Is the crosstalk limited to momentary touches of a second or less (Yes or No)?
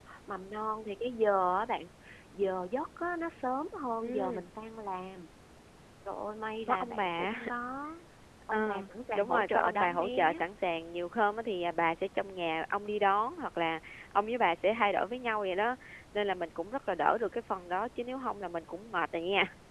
No